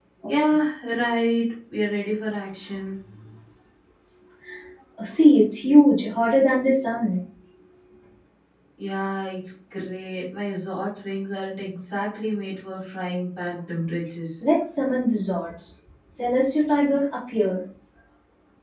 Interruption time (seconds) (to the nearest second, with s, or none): none